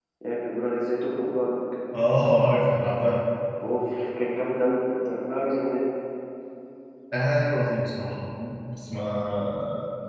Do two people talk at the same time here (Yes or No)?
No